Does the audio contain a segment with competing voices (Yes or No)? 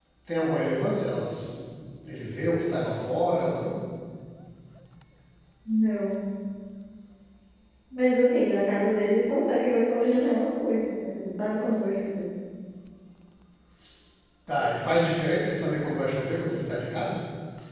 No